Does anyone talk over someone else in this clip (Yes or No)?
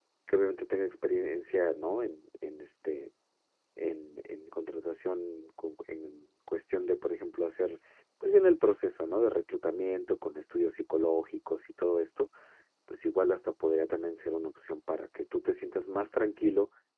No